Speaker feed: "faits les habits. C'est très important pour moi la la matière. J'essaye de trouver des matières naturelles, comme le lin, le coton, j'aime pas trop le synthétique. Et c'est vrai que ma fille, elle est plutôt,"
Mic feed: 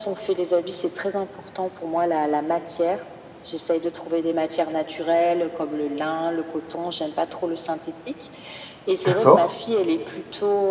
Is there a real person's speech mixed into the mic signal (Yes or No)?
Yes